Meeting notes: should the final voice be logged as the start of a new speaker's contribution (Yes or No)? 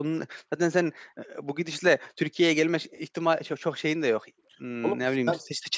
No